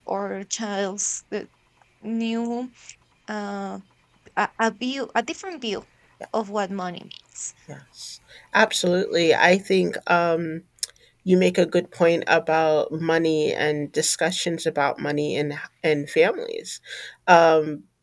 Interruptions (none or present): none